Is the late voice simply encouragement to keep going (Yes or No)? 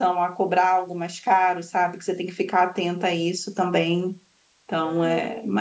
No